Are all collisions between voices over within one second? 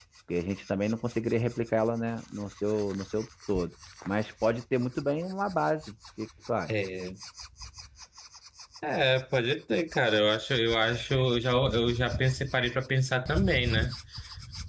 Yes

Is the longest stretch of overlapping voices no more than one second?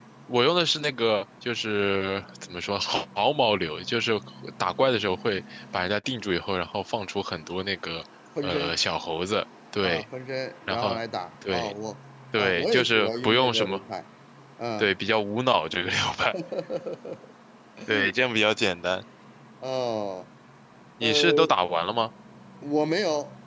No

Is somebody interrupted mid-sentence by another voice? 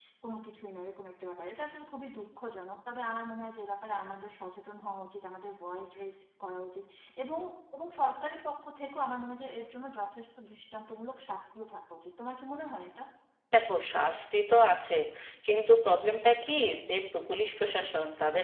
No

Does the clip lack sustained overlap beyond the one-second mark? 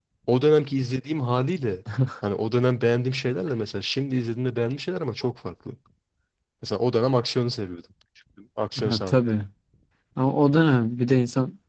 Yes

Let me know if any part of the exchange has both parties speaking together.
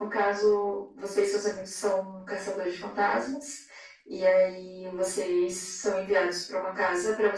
No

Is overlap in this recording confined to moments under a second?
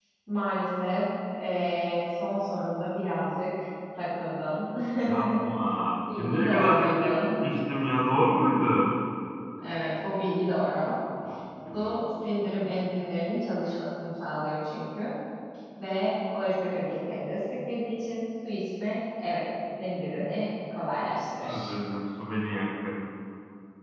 No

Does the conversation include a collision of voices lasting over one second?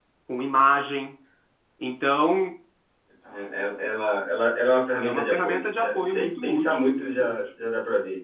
Yes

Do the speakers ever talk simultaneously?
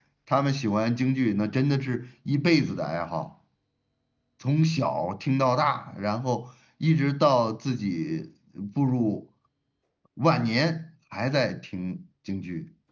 No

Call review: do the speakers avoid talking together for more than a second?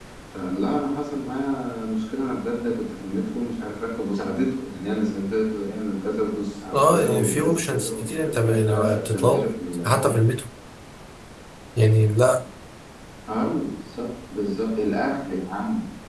No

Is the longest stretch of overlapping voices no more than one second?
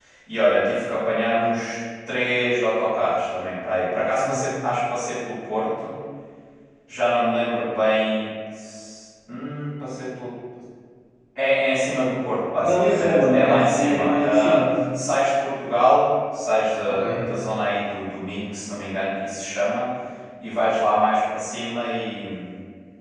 No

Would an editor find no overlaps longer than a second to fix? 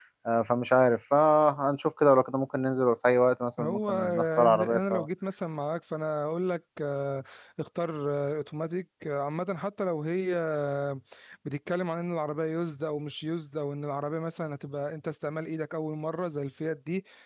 No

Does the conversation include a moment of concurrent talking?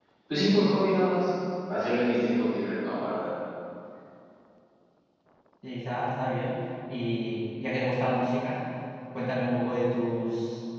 No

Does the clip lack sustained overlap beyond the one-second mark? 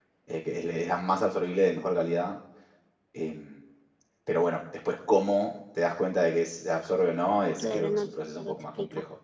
No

